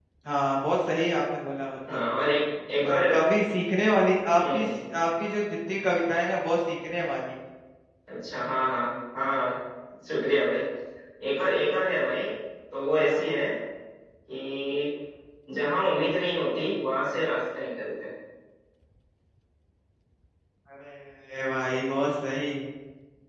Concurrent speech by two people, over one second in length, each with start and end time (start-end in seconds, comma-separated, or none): none